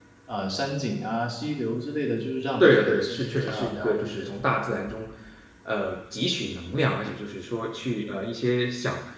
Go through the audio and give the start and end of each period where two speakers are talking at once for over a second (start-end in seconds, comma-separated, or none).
2.6-4.3